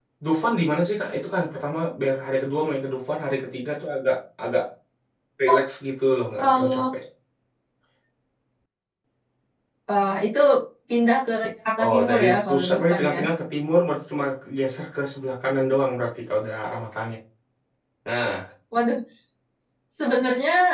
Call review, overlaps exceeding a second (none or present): present